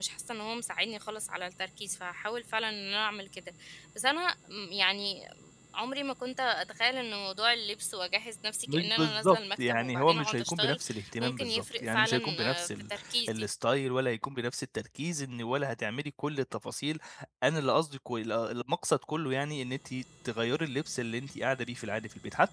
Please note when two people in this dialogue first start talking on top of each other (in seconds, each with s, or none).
8.7 s